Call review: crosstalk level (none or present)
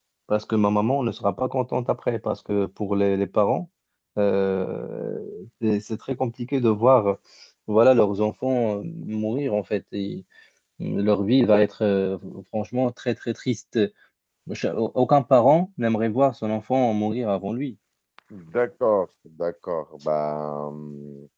none